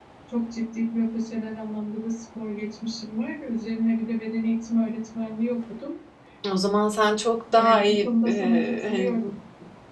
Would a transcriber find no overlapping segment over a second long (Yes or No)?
No